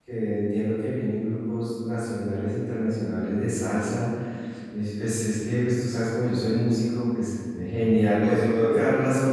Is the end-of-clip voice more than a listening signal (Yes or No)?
No